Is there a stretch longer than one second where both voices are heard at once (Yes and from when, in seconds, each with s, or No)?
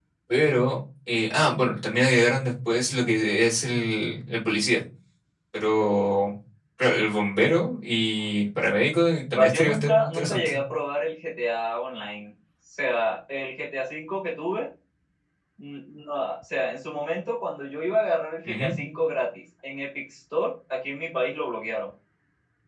Yes, from 9.3 s